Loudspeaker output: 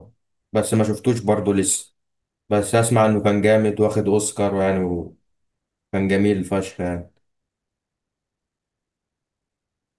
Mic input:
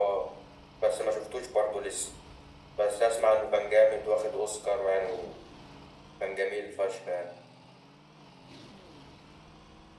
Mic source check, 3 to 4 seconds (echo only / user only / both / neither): echo only